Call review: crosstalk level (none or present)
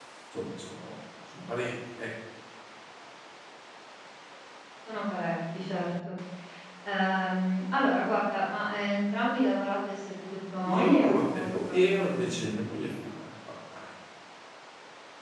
present